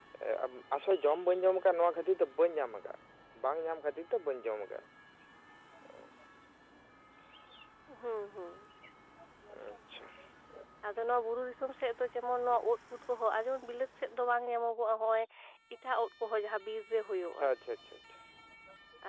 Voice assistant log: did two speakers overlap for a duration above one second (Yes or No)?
No